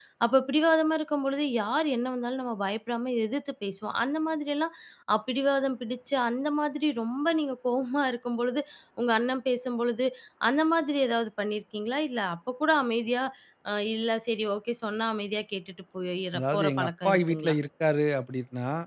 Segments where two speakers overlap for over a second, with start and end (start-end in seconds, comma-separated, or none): 16.4-17.6